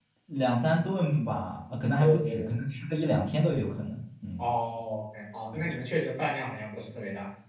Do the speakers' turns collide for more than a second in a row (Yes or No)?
No